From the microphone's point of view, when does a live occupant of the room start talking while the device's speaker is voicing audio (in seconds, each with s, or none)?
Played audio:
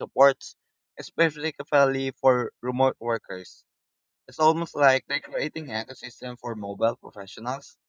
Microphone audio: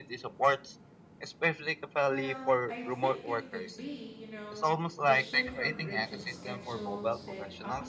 2.1 s